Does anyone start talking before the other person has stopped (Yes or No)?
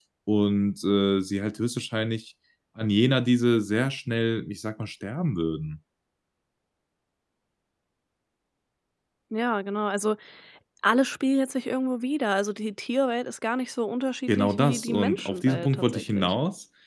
Yes